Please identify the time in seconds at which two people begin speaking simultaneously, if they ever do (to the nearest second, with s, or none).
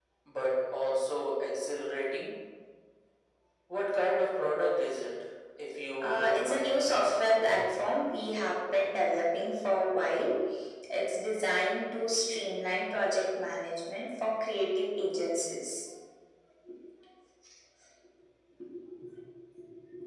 6 s